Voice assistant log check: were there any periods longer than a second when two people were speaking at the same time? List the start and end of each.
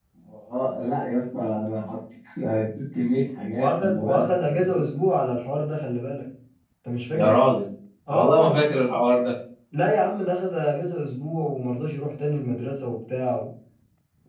3.6-5.0

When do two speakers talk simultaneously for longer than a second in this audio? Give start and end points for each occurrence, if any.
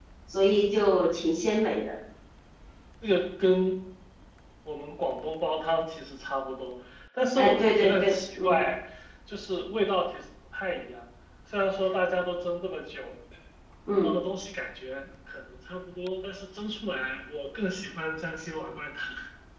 7.4-8.6

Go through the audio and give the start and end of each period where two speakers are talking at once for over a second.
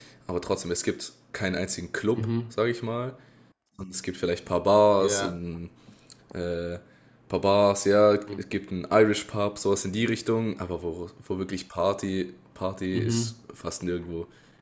none

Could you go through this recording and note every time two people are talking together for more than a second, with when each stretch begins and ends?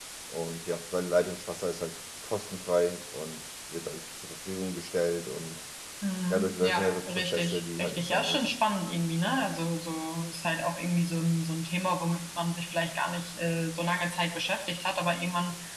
6.3-8.5

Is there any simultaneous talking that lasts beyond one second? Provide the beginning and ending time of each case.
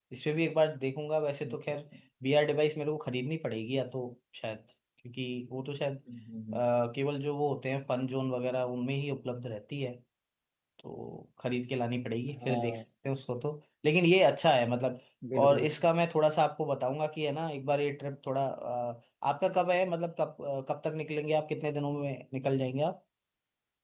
none

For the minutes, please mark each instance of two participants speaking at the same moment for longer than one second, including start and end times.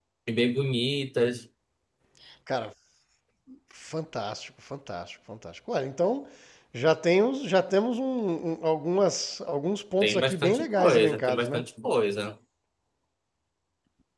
10.0-11.6

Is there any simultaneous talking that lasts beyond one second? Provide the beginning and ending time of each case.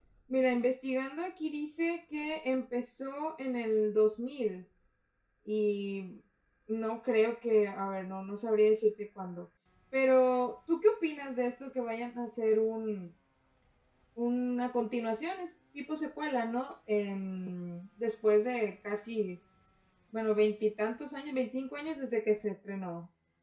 none

